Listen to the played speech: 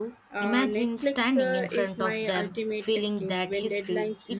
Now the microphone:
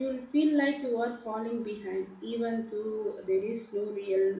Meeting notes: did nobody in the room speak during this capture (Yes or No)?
No